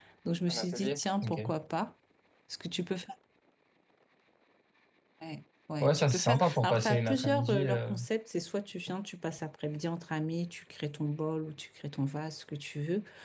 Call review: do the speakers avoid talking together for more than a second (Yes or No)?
No